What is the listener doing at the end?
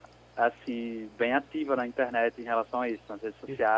taking over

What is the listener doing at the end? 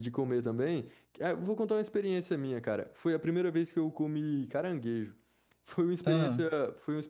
listening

